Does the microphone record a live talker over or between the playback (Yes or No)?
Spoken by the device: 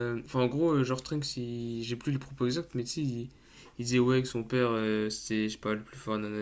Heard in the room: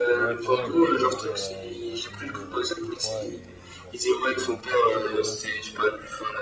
Yes